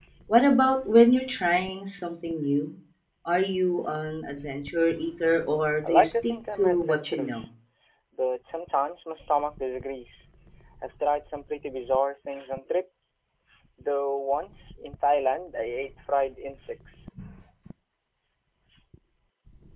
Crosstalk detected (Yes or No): Yes